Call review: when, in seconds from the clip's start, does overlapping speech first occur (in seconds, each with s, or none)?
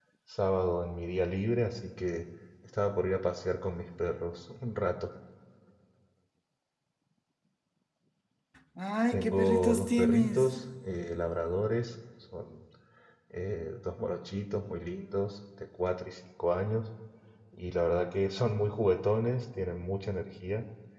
9.1 s